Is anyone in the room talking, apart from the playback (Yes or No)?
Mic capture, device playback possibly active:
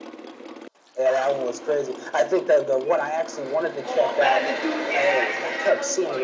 Yes